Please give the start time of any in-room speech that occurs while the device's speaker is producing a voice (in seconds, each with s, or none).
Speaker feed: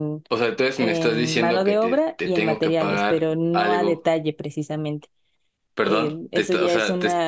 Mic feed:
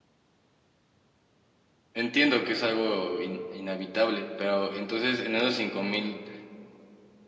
1.9 s